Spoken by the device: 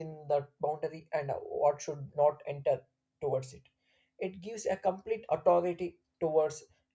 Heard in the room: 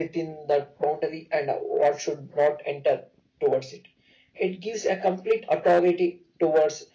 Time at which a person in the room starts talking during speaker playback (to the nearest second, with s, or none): none